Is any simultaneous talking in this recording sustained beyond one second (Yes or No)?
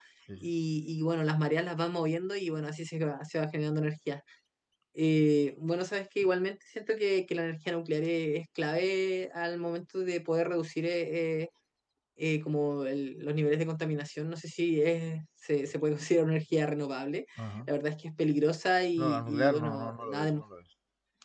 Yes